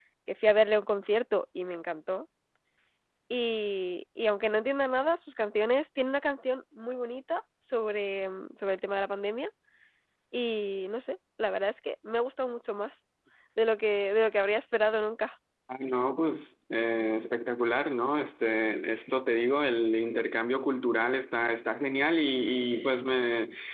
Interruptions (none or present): none